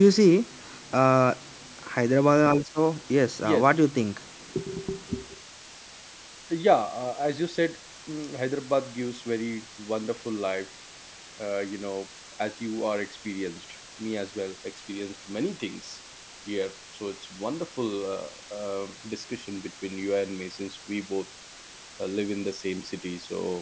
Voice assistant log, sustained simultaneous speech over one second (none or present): none